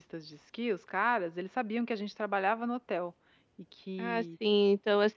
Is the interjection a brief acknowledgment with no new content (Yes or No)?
No